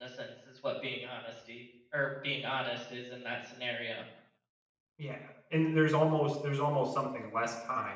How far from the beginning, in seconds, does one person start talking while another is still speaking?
none

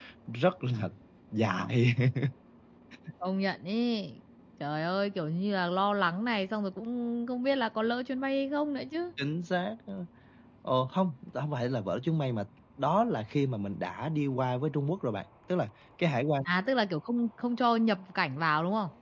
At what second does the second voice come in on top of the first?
none

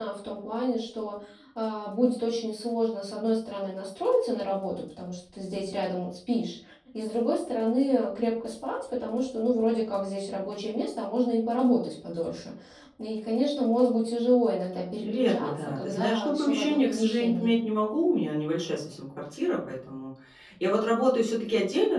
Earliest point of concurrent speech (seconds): 15.0 s

